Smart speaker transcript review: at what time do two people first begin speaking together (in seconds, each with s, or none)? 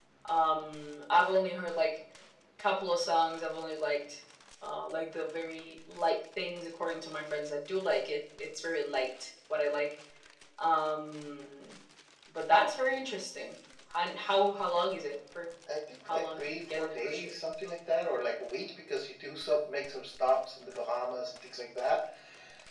16.1 s